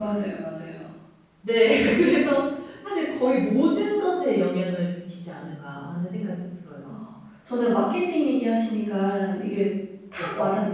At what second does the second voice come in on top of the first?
none

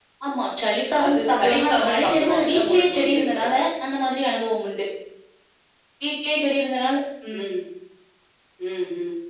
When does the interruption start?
1.0 s

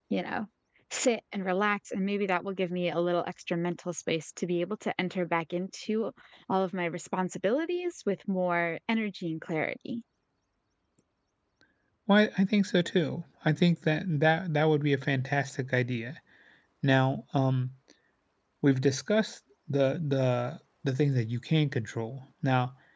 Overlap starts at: none

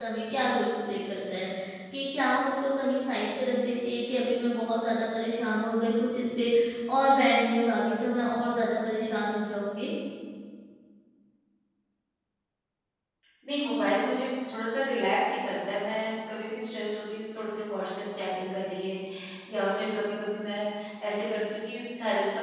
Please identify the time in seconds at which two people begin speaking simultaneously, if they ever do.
none

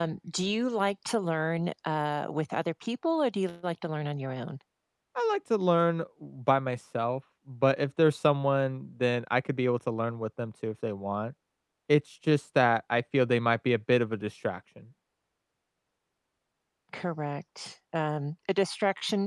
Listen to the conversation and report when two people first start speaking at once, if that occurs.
none

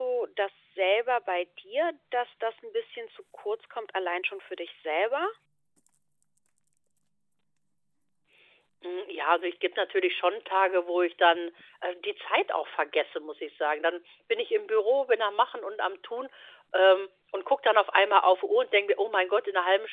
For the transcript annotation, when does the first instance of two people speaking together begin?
none

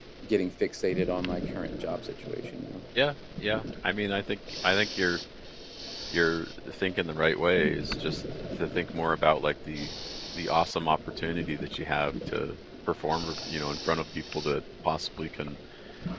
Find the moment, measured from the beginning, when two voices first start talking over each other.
none

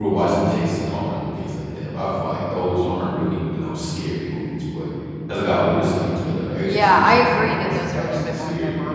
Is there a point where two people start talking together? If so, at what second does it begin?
6.6 s

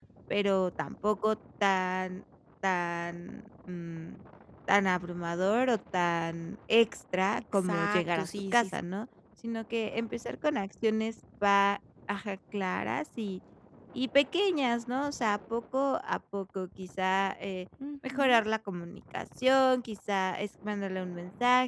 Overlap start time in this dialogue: 7.4 s

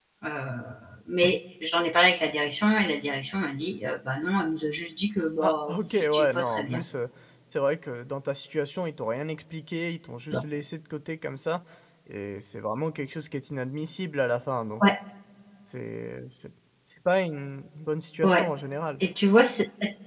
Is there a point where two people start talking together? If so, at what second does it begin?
5.4 s

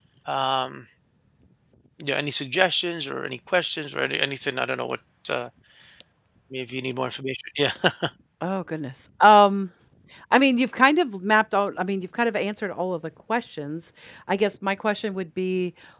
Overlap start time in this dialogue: none

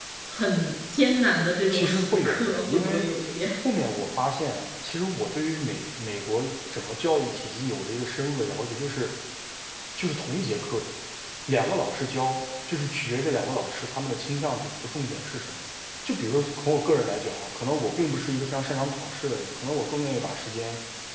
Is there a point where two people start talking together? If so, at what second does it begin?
1.7 s

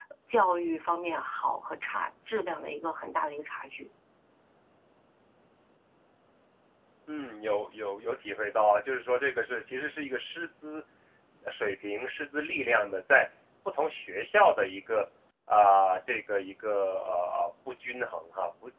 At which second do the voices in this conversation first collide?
none

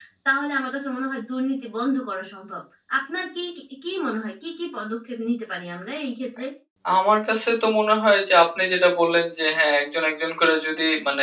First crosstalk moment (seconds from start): none

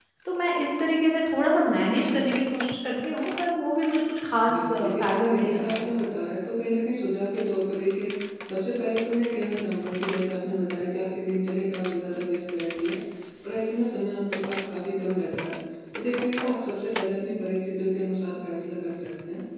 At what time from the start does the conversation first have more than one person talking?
4.5 s

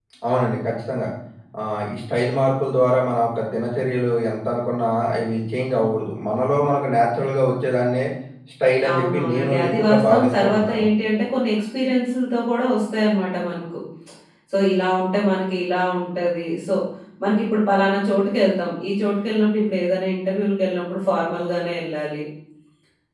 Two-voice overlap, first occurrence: 8.9 s

